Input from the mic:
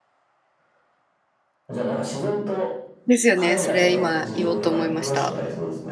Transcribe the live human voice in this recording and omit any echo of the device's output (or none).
ですよね。それ今言おうと思いました。